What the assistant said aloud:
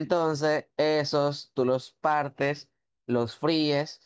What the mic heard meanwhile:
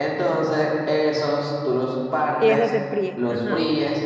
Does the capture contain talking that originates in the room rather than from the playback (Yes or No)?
Yes